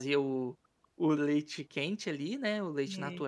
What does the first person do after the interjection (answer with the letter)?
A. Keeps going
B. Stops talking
A